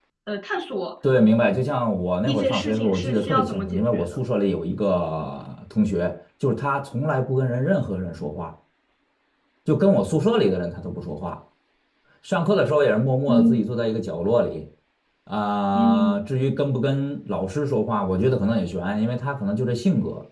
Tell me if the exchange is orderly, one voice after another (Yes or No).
No